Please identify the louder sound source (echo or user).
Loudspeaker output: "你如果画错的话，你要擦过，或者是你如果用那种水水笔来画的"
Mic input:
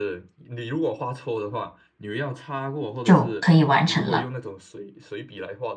user